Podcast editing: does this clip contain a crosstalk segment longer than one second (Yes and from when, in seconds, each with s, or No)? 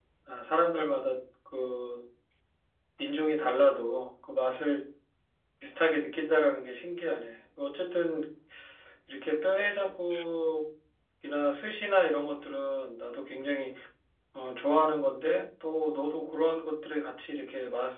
No